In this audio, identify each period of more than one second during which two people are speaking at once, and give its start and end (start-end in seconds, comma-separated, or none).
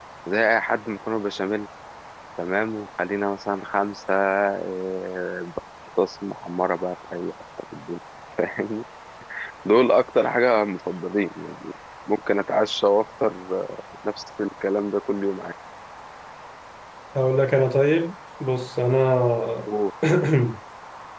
none